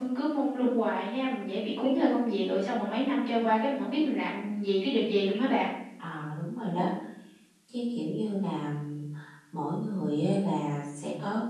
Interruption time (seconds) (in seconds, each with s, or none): none